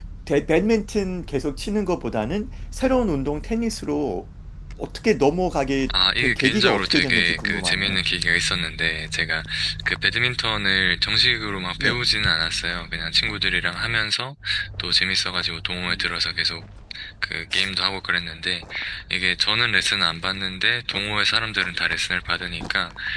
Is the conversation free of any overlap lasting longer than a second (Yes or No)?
No